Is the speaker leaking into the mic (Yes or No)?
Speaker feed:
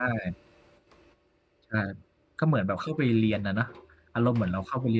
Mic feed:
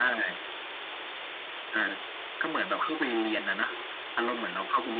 Yes